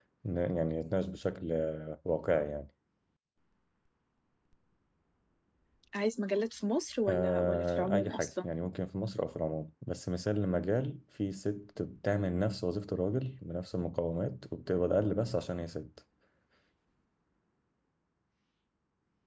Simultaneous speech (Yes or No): Yes